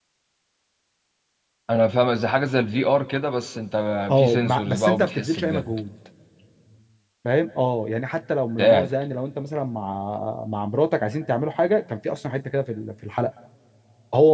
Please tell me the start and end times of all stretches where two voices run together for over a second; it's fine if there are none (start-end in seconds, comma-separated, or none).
4.2-5.8